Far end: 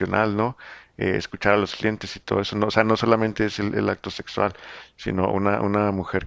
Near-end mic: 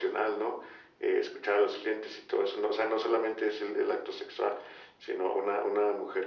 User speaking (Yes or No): No